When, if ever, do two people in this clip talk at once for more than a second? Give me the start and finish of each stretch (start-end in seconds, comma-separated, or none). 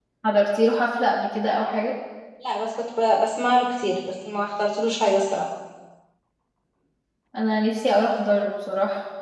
none